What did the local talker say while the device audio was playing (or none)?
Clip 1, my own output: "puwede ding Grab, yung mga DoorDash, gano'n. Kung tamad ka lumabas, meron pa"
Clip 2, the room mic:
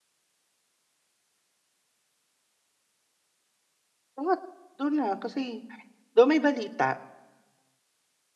lahat do'n na kasi though may balita,